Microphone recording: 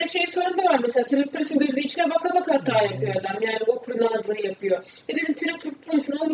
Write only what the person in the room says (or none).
Aynen.